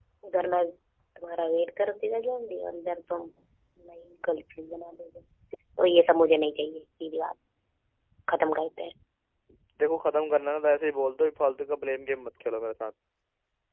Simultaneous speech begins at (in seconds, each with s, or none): none